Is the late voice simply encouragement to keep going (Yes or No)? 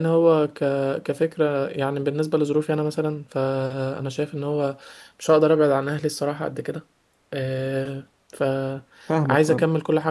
Yes